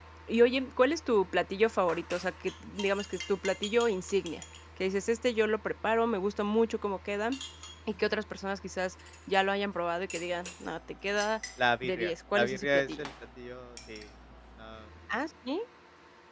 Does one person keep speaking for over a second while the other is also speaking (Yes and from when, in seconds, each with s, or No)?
Yes, from 11.8 s